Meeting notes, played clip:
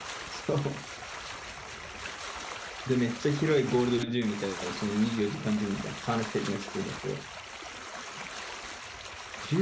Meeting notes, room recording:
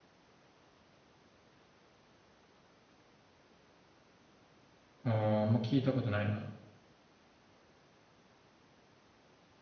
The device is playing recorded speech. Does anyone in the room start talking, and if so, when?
5.0 s

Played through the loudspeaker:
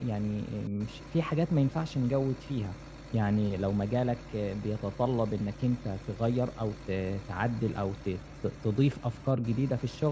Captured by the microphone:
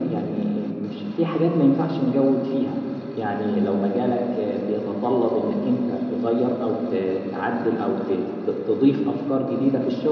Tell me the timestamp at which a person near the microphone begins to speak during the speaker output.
none

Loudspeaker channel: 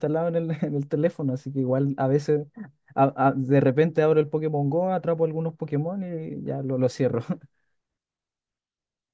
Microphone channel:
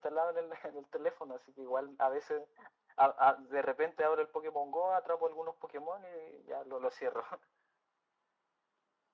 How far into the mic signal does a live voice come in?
none

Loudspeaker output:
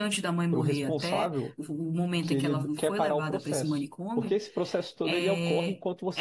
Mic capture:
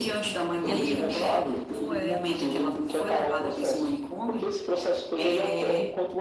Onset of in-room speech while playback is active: 0.6 s

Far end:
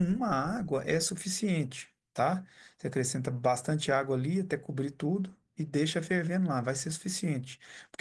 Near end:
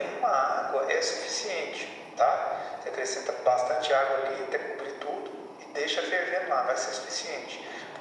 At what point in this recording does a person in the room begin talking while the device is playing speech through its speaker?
none

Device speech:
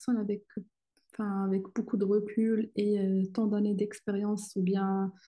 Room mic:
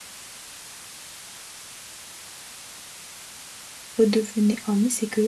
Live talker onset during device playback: 4.0 s

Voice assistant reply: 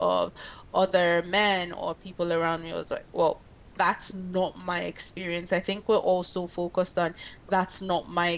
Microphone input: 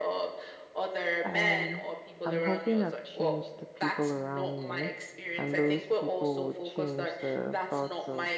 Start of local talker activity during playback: 1.2 s

